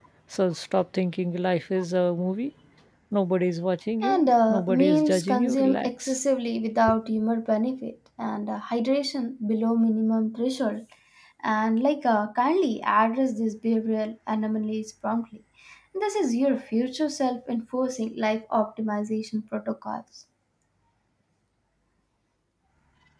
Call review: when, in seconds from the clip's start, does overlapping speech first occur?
4.0 s

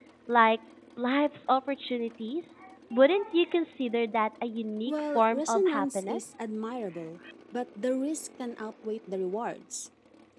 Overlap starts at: 4.9 s

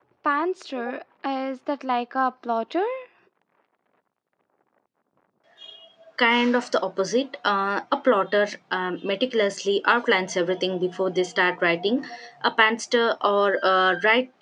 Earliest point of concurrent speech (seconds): none

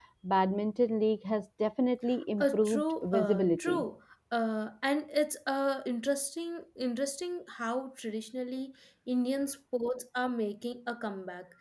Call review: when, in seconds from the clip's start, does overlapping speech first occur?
2.4 s

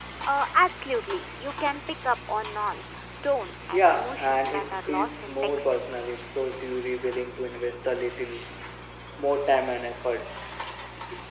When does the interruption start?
3.7 s

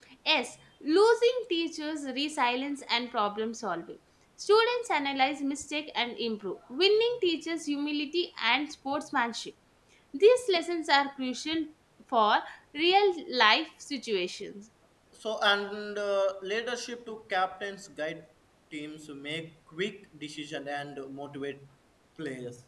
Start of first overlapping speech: none

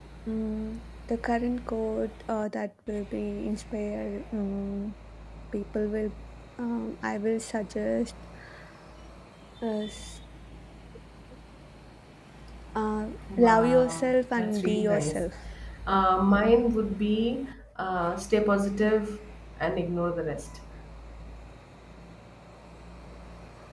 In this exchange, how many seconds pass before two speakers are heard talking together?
13.4 s

